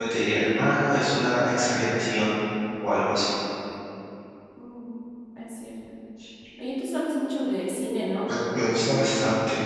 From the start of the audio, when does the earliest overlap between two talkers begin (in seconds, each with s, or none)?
none